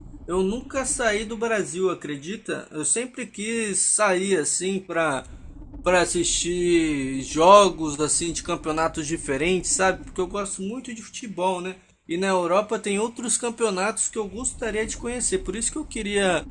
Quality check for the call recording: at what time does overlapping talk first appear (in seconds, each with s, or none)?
none